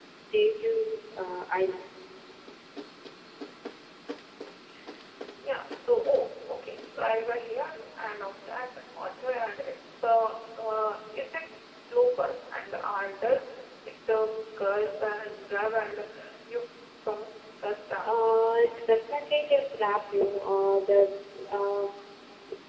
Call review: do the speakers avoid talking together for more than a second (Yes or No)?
Yes